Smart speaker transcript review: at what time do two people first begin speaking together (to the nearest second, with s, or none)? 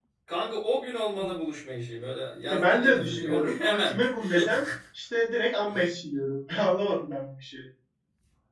2 s